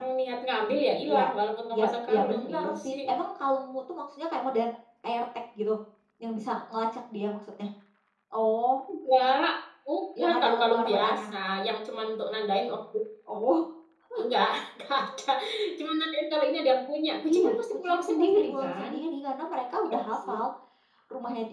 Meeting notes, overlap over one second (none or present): present